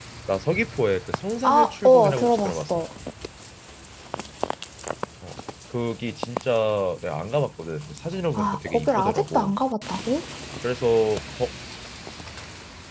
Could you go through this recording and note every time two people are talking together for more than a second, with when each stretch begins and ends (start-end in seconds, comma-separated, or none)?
1.4-2.8, 8.3-9.6